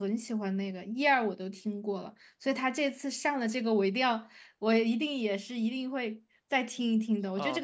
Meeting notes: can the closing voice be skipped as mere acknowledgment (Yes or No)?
No